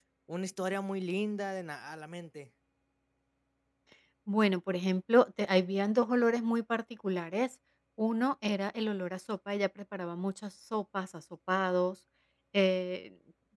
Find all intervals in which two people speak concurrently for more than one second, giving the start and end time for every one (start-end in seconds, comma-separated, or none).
none